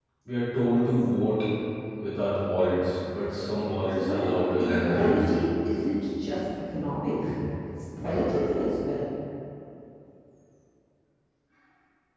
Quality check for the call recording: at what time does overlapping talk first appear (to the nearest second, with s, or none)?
4 s